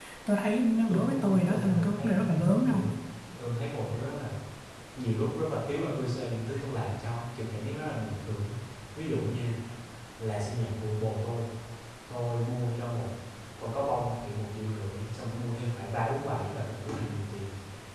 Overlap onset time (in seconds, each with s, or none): 0.9 s